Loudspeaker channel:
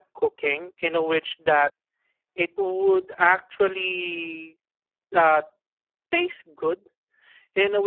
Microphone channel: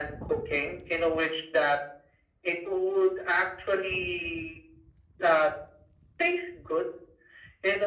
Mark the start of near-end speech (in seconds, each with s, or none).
none